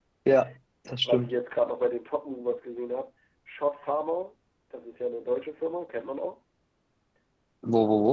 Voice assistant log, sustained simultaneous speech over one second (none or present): none